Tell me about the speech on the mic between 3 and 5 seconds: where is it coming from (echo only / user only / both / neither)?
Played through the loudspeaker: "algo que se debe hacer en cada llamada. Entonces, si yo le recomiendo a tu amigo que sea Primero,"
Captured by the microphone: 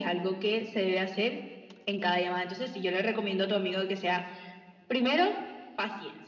echo only